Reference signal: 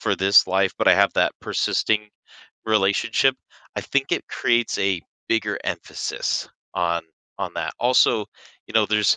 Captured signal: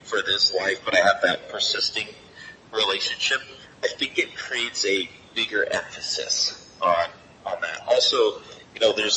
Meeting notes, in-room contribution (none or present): none